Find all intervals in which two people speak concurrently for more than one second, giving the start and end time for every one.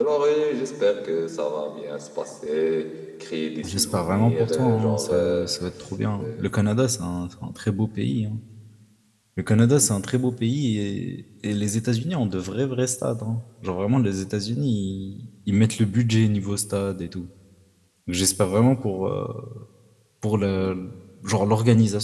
3.6-5.5

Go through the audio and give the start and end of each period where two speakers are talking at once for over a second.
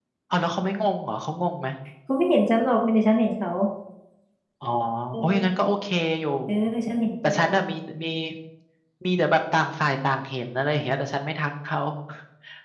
none

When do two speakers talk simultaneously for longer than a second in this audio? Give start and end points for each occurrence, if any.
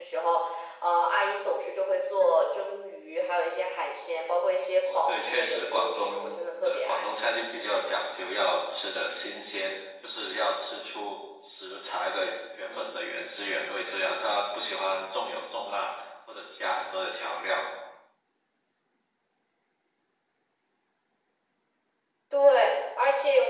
4.9-7.0

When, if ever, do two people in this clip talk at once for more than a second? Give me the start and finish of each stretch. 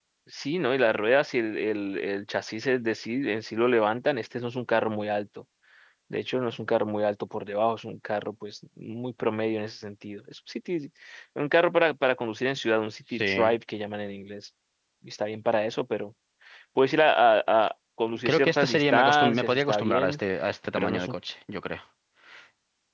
18.2-20.2

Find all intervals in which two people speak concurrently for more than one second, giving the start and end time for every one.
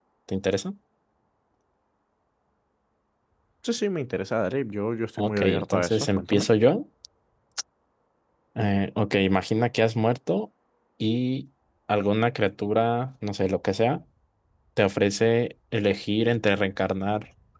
5.2-6.5

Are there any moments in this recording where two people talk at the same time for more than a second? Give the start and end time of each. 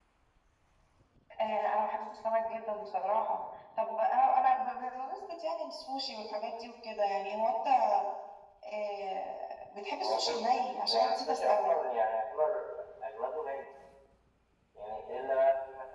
9.9-11.7

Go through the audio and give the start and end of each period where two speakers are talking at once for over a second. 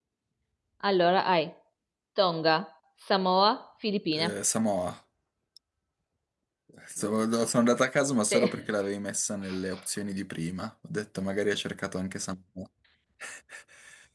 none

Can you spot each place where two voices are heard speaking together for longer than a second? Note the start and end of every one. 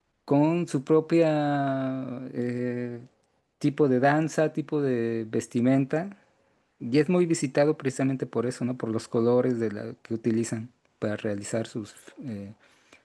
none

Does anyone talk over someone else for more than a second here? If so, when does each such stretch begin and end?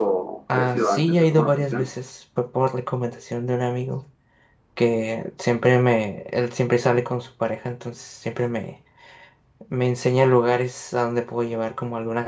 0.5-1.9

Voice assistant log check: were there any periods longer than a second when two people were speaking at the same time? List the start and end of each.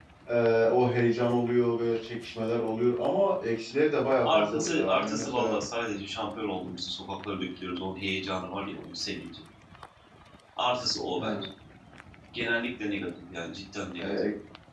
4.3-5.6

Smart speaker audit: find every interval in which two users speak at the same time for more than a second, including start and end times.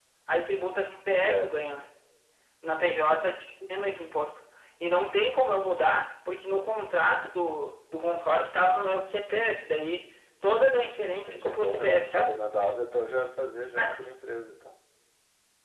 11.1-12.3

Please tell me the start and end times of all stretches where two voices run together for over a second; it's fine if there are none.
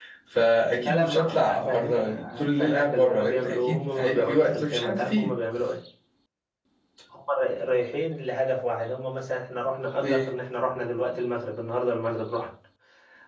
0.8-5.3

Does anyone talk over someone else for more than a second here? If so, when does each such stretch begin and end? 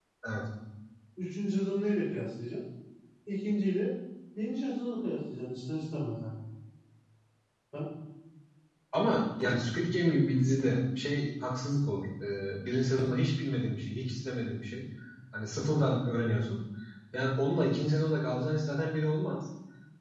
none

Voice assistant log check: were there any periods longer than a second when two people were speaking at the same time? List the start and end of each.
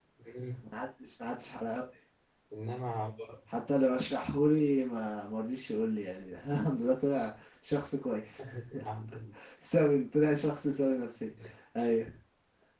none

